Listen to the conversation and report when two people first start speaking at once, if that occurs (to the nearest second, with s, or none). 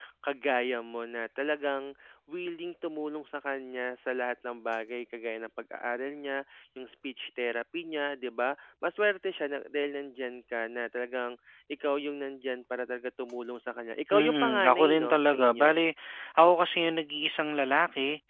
14 s